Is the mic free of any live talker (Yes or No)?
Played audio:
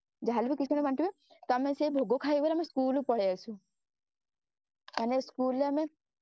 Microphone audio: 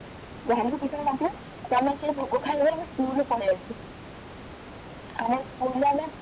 Yes